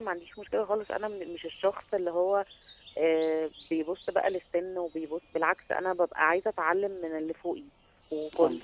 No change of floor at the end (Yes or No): Yes